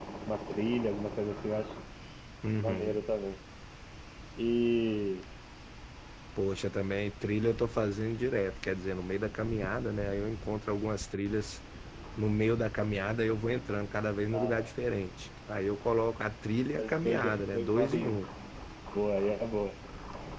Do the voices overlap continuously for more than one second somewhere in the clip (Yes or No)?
Yes